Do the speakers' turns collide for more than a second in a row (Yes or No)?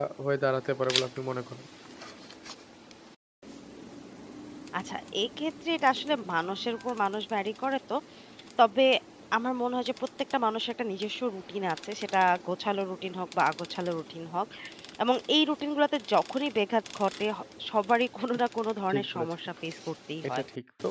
No